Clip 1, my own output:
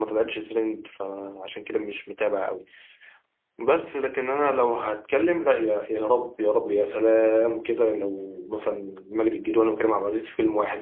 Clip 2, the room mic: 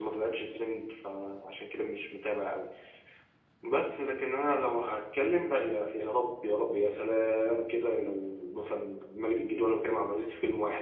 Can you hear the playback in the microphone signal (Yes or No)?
Yes